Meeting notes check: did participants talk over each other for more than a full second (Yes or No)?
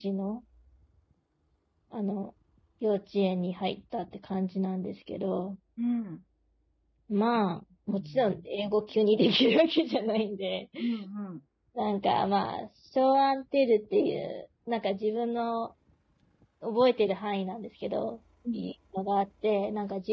No